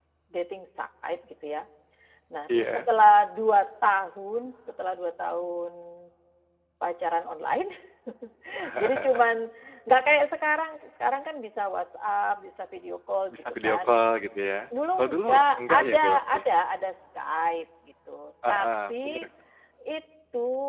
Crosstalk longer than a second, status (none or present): present